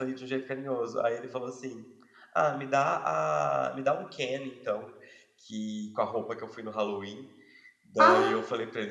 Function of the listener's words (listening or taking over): listening